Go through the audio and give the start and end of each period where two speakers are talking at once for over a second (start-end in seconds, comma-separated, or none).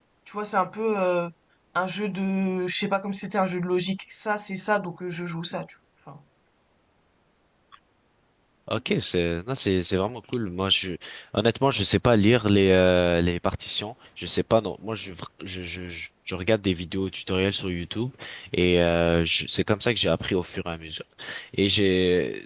none